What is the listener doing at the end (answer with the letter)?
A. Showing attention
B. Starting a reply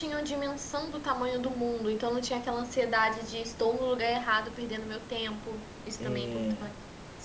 B